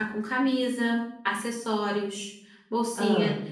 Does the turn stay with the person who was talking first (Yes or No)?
Yes